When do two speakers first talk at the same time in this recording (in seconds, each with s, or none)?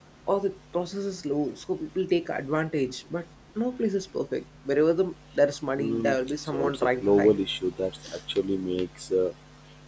5.8 s